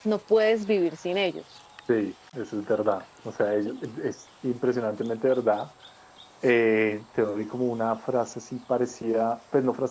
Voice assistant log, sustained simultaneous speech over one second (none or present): none